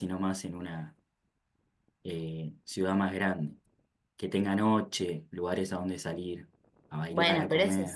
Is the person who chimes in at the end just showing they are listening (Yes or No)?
No